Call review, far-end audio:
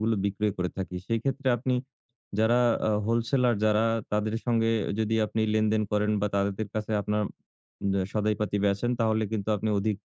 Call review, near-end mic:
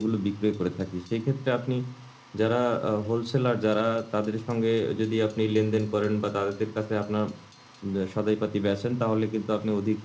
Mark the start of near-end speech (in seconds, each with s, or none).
none